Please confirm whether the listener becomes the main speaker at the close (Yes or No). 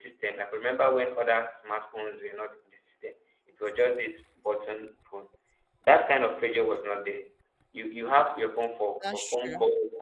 No